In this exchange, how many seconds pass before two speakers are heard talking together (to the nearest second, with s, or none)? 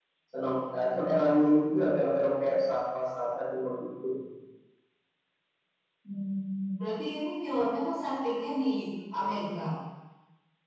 none